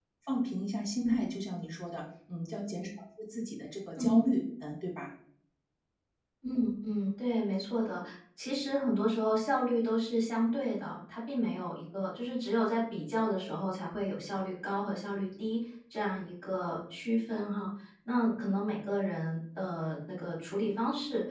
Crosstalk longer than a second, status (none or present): none